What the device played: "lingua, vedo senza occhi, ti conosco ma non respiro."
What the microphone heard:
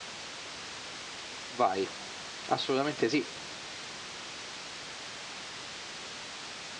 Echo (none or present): none